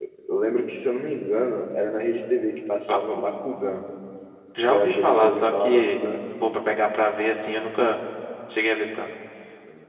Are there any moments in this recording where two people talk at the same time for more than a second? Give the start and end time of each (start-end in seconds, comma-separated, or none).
4.6-6.0